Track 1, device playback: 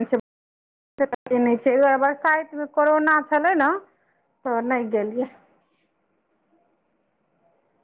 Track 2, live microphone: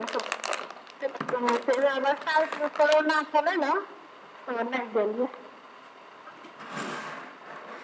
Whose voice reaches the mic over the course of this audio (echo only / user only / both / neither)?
echo only